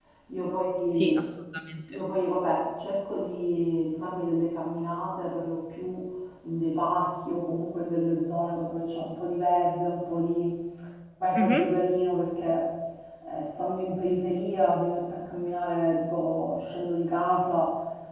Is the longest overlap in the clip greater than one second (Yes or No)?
No